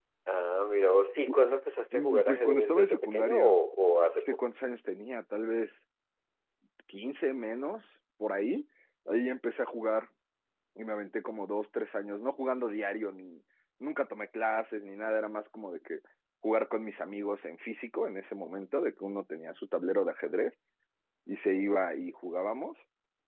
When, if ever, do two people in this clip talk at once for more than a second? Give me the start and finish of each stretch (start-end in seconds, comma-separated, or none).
1.9-3.4